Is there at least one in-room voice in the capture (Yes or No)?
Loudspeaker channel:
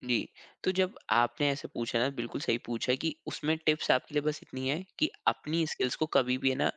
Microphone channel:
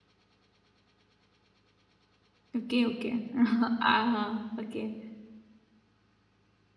Yes